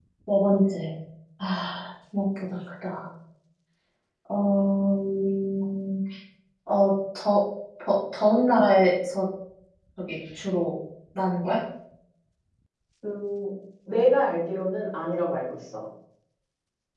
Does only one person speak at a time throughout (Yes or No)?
Yes